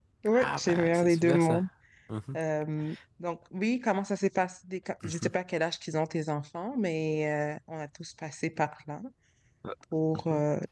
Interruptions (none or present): present